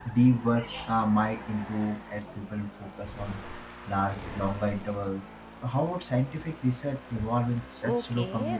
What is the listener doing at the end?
taking over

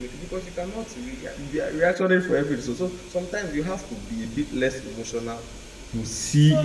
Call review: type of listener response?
taking over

